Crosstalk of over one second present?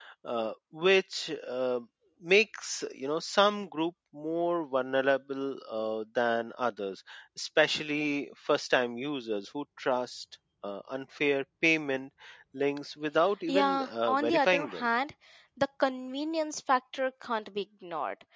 Yes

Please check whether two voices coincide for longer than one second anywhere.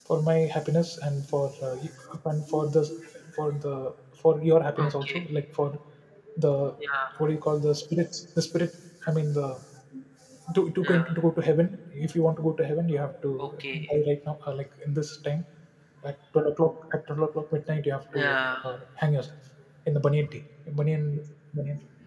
No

